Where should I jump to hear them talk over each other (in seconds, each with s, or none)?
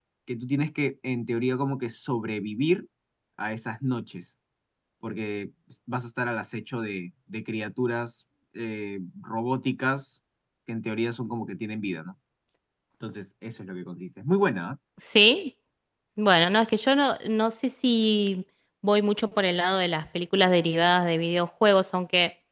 none